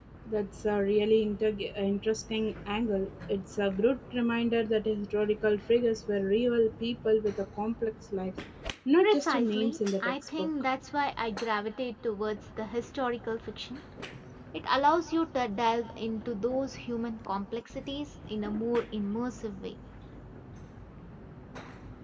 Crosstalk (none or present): present